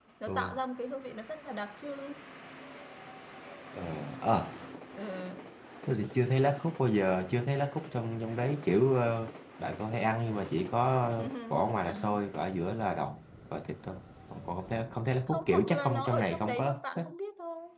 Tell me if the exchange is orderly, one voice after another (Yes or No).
No